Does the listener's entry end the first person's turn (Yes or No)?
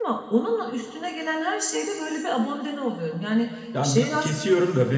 Yes